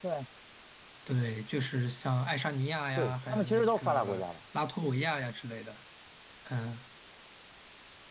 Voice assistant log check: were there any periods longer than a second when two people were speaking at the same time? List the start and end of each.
3.0-4.2

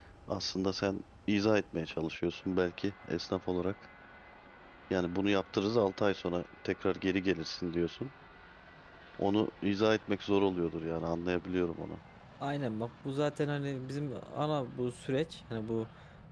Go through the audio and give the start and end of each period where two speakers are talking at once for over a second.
none

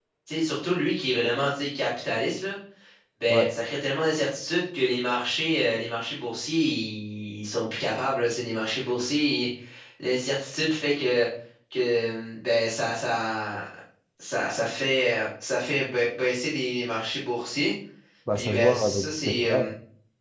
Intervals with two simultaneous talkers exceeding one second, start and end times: 18.4-19.7

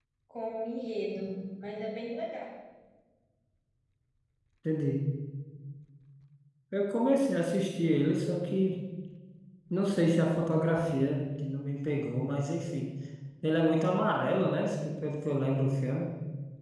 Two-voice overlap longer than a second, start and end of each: none

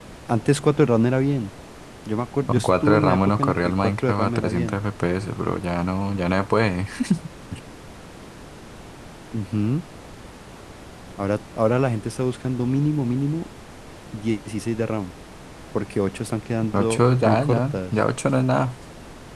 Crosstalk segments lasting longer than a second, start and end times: 2.5-4.8, 16.7-17.9

